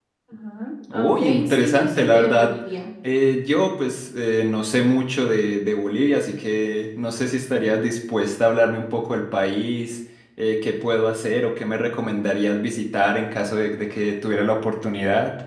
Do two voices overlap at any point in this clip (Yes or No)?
Yes